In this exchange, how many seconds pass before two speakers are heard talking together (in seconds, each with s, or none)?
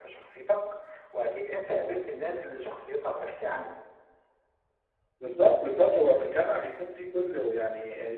none